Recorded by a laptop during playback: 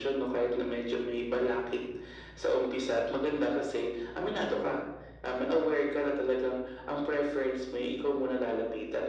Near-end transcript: none

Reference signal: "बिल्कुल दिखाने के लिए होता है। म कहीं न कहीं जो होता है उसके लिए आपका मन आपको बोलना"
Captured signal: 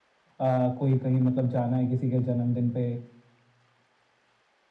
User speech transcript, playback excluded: अ, कोई कहीं मतलब जाना है किसी के जन्मदिन पे

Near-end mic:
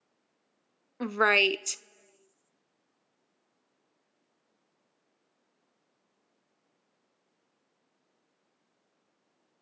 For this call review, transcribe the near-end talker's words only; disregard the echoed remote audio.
Right.

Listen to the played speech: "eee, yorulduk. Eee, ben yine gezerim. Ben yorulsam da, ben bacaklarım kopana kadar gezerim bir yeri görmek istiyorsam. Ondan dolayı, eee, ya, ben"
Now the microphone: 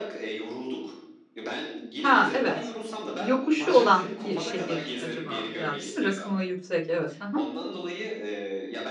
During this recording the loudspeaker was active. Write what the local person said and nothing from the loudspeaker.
Ha, evet. Yokuşu olan bir şehir acaba, herhâlde değil mi? Rakımı yüksek, evet, hı hı.

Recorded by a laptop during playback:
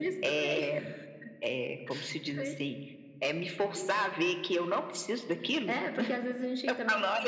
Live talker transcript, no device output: none

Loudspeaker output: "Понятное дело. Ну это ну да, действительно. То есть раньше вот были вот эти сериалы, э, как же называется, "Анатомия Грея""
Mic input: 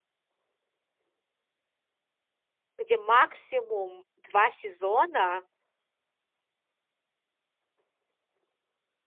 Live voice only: где максимум 2 сезона,

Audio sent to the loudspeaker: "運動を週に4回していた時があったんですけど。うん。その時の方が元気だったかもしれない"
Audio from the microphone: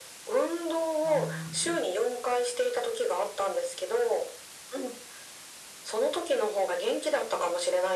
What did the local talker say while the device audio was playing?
ああ。

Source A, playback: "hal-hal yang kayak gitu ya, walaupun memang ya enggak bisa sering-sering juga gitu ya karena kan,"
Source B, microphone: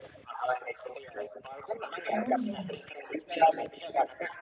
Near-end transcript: Oh iya.

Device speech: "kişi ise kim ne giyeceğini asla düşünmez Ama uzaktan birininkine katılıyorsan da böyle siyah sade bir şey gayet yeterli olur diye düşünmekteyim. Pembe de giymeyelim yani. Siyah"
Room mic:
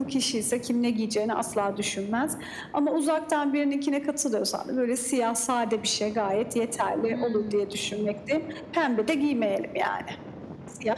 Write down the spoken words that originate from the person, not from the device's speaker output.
Hımm.

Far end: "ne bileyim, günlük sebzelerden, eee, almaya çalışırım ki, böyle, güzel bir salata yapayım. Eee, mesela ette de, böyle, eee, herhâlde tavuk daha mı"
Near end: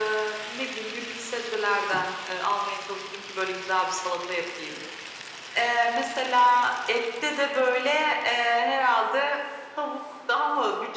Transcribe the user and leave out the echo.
none

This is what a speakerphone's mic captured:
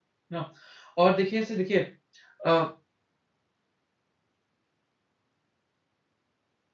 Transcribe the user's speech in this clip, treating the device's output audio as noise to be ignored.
ना और देखिए ऐसे देखिए अ,

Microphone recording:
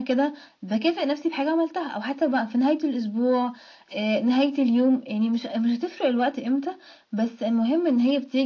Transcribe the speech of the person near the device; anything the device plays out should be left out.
none

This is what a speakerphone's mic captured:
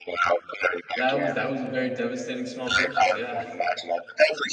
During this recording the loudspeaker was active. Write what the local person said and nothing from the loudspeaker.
That was that was a very devastating small purchase, yeah.

